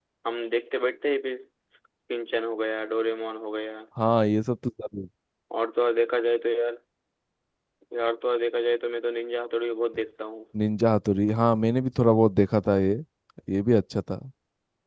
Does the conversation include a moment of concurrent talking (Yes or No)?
No